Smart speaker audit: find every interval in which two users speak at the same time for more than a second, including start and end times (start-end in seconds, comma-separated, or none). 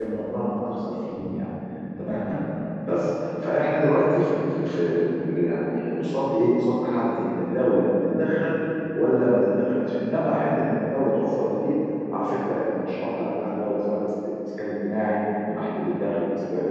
none